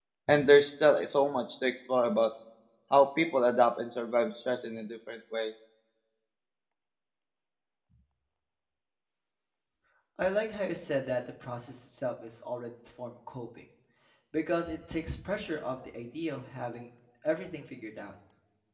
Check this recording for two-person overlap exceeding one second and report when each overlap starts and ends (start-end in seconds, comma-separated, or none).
none